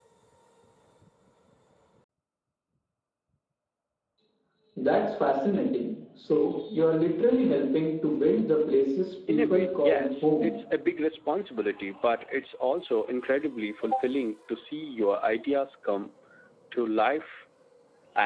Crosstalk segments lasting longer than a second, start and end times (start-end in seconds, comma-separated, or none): 9.3-10.5